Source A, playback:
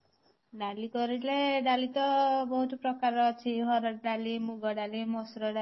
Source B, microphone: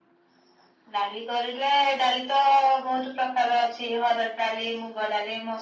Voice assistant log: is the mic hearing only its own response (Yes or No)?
Yes